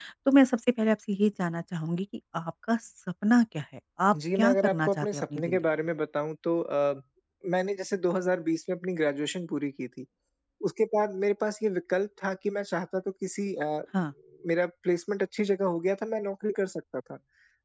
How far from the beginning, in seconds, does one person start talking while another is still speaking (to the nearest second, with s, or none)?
4 s